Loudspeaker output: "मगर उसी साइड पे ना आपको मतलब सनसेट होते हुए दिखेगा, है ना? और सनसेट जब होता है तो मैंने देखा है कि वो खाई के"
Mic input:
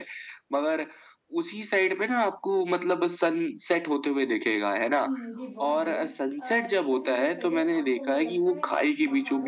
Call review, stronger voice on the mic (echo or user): echo